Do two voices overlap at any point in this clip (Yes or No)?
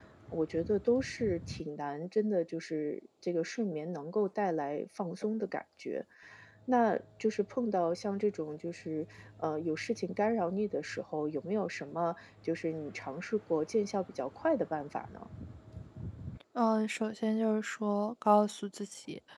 No